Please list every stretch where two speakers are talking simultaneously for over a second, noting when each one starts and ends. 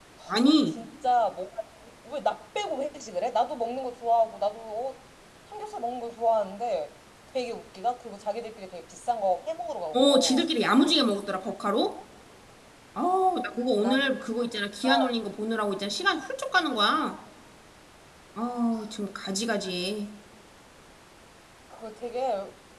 none

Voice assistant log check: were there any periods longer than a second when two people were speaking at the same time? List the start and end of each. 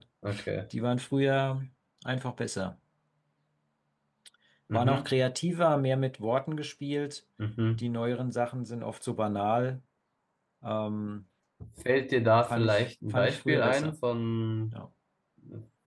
12.4-13.9

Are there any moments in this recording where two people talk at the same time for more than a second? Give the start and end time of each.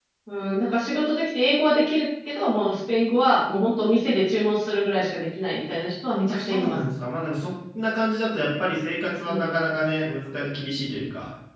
none

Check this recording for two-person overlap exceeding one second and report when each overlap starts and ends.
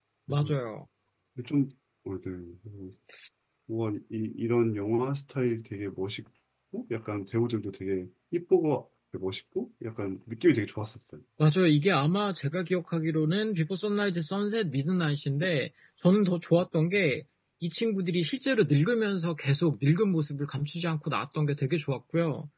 none

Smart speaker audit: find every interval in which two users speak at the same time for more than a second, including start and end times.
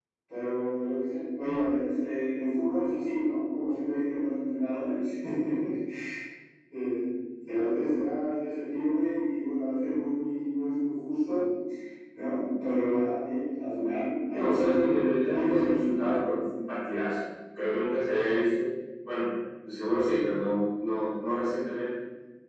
14.4-16.6

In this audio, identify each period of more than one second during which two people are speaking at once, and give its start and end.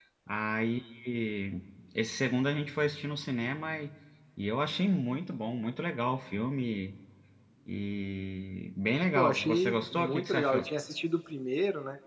9.2-10.7

